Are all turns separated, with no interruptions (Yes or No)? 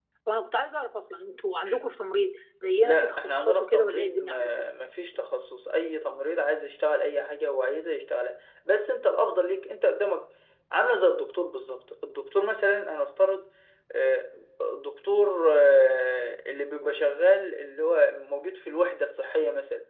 No